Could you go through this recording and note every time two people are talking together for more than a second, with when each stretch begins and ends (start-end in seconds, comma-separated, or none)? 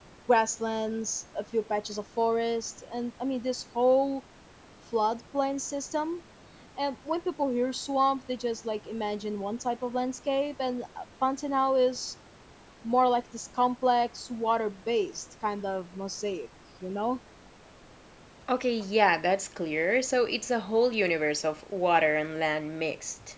none